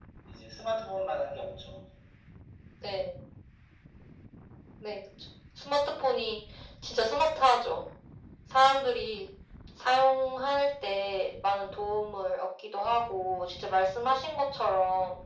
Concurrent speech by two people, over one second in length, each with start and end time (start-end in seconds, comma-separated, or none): none